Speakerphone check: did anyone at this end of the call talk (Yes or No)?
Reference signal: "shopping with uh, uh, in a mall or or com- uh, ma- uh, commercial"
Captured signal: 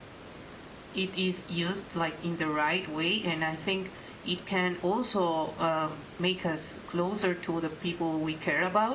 Yes